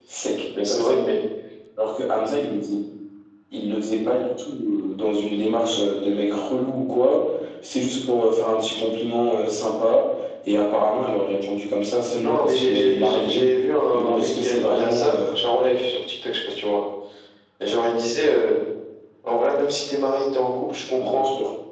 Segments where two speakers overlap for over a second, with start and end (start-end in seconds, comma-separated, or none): 12.2-13.4, 13.9-15.2